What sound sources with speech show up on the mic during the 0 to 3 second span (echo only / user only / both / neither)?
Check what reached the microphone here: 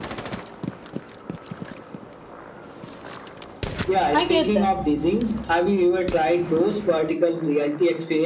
neither